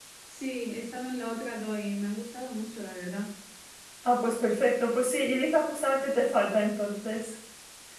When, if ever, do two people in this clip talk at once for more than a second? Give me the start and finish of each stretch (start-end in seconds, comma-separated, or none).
none